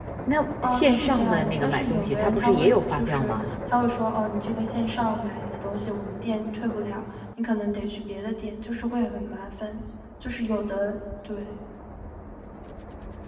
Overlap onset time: 0.6 s

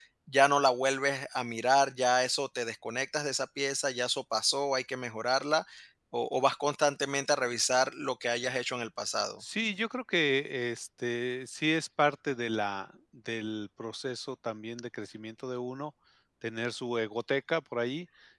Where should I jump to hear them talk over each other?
none

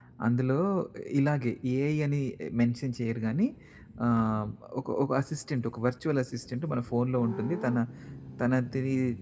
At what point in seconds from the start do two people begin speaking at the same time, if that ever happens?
none

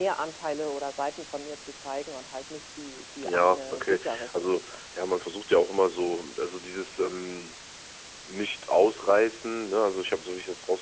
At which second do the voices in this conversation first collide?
3.2 s

